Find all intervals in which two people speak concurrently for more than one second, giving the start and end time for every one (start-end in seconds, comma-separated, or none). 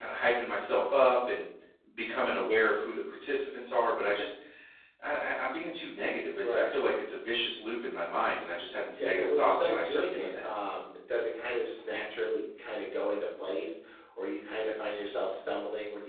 8.9-10.5